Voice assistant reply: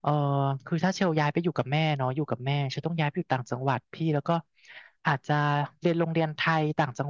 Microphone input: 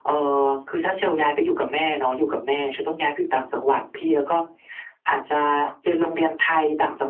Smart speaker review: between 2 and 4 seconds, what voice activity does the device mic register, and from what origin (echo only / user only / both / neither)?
echo only